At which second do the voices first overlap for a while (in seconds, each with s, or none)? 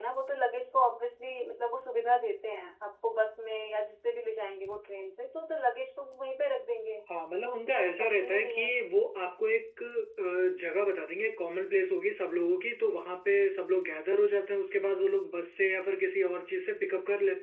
7.5 s